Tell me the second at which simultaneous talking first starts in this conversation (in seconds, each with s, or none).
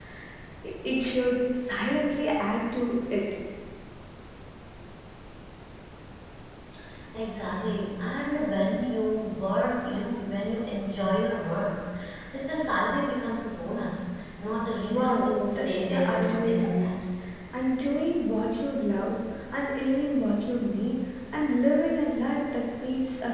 14.9 s